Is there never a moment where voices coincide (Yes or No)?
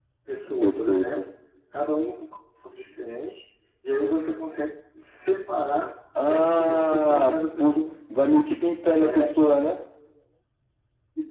No